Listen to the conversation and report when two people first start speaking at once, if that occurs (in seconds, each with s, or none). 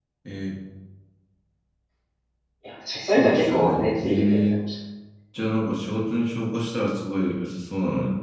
3.1 s